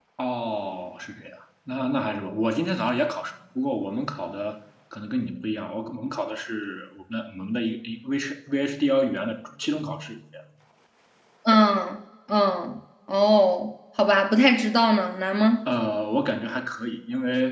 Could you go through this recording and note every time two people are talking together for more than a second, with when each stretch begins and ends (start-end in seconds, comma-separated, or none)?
none